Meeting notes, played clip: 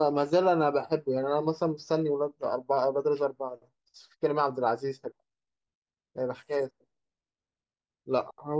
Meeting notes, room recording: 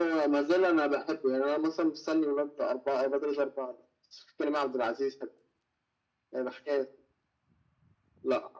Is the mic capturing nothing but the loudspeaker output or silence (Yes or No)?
Yes